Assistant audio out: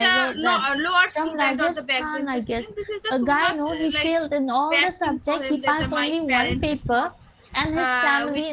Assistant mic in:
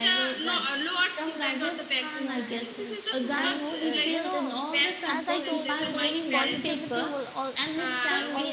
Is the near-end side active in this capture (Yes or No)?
Yes